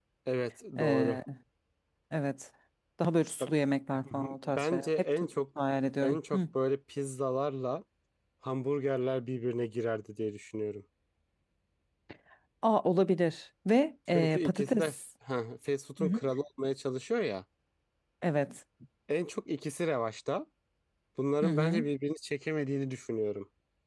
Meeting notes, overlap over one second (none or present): present